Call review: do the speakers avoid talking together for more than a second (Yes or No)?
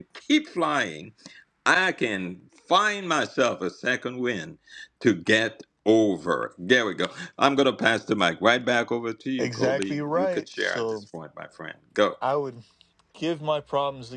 No